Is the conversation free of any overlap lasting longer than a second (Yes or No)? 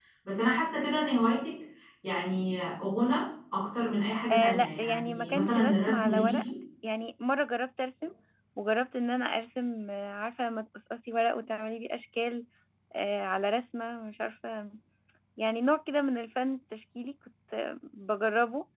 No